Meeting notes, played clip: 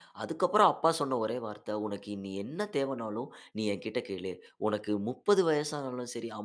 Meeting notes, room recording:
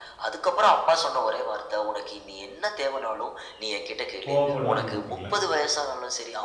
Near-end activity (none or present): present